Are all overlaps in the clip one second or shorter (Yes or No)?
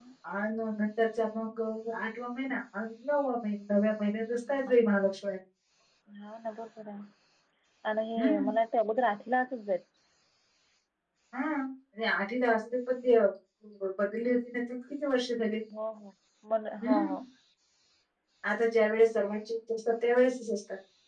Yes